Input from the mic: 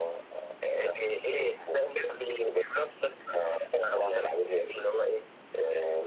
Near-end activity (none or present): none